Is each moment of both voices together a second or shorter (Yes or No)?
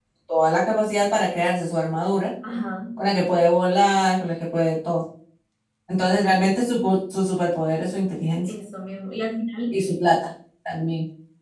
Yes